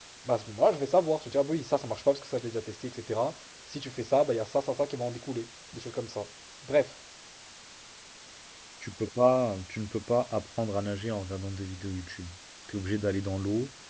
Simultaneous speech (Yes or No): No